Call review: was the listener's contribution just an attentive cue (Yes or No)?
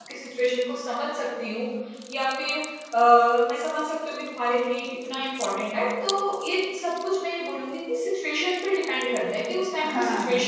Yes